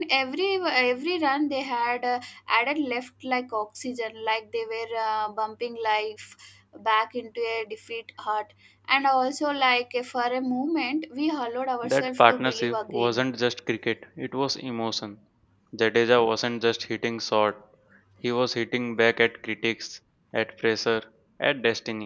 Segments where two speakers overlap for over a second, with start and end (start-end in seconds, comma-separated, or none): 11.8-13.2